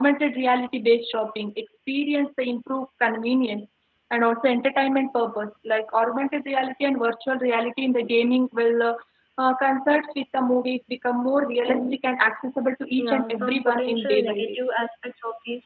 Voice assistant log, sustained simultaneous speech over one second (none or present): present